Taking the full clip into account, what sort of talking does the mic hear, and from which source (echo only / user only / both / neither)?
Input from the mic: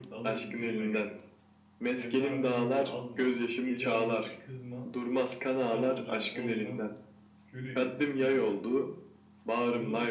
both